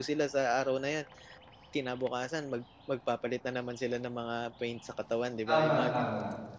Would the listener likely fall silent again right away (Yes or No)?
No